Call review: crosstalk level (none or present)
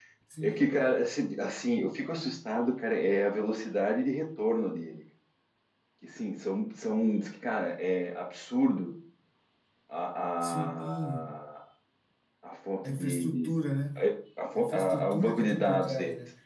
present